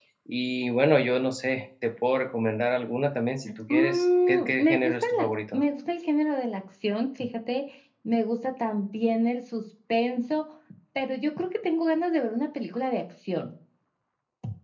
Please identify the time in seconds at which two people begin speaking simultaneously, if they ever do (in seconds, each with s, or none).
3.7 s